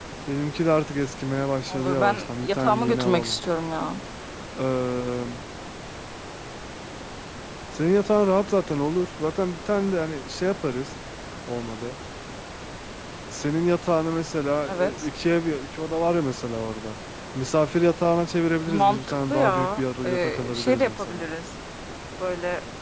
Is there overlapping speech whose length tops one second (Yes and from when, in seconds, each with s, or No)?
Yes, from 1.7 s